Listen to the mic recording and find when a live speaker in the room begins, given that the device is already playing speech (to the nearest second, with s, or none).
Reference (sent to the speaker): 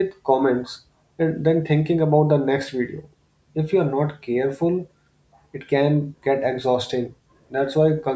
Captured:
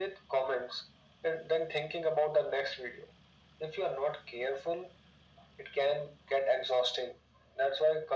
none